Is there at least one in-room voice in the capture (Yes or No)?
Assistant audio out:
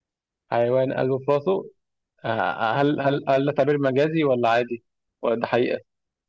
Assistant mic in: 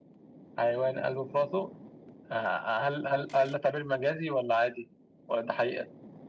No